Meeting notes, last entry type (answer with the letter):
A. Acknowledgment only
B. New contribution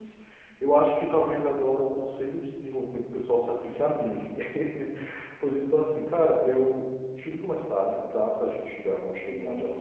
B